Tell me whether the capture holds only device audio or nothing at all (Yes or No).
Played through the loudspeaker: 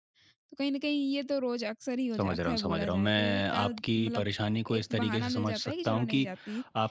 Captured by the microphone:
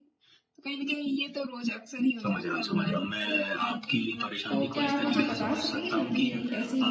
No